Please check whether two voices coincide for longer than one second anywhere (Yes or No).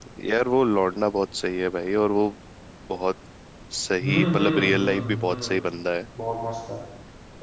Yes